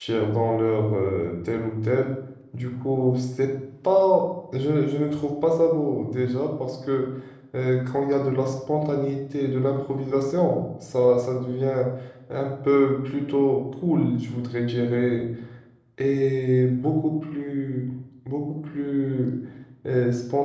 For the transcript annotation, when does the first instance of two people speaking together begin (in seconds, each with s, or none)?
none